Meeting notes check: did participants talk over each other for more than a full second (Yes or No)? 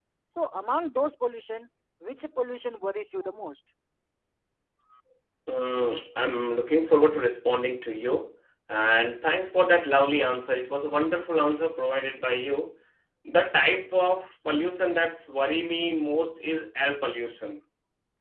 No